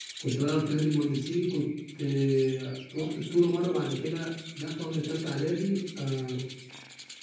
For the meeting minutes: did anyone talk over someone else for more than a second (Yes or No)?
No